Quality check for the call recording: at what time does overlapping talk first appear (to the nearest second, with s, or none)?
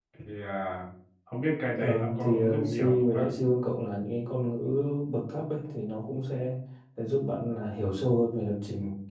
2 s